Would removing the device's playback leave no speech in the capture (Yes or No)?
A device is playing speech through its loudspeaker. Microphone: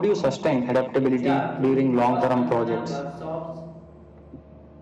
No